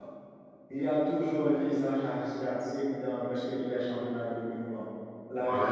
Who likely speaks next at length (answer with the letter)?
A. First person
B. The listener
B